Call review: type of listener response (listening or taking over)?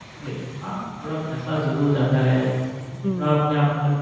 listening